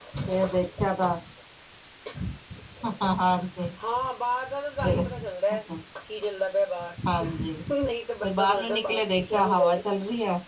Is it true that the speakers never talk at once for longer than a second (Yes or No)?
No